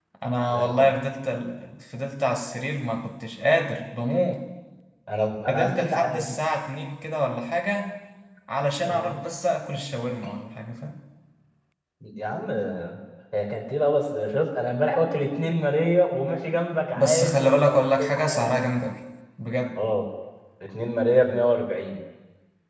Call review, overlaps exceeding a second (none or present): present